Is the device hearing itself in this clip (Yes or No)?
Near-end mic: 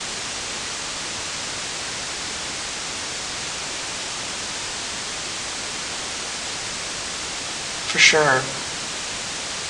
No